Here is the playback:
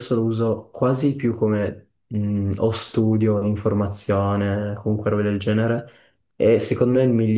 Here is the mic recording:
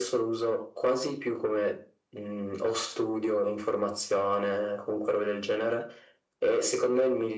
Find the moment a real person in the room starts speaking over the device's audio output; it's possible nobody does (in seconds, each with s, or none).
none